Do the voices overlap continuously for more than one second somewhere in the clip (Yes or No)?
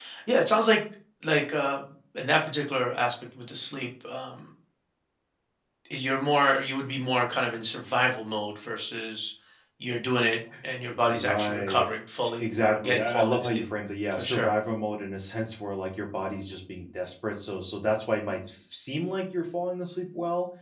Yes